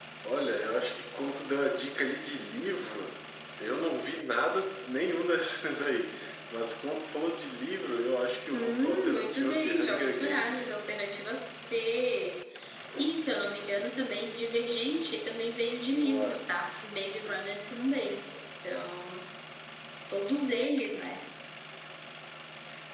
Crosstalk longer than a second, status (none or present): present